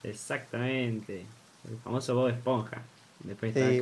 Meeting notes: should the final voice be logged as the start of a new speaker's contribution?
Yes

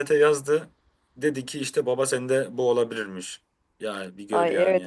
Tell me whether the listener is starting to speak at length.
Yes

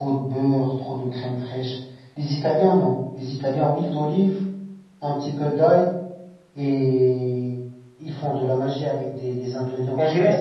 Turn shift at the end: Yes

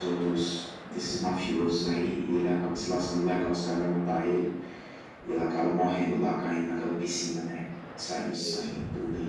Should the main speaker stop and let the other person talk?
No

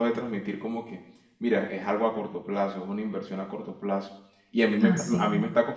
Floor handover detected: No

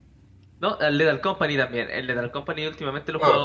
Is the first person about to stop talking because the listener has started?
No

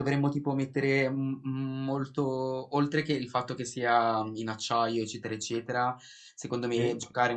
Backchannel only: Yes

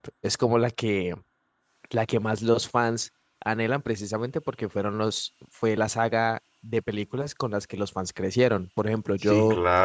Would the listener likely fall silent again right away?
No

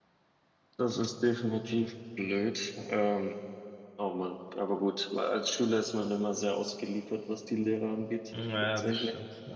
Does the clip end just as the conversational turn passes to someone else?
Yes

